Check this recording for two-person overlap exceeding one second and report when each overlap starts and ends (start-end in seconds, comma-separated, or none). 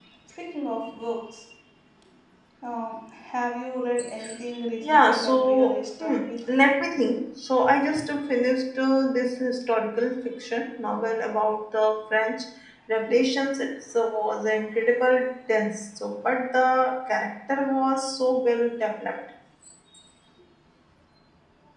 4.9-6.7